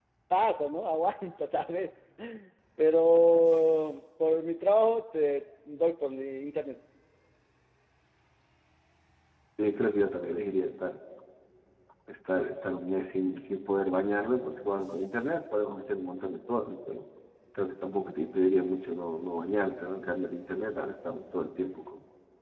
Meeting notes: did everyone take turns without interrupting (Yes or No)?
Yes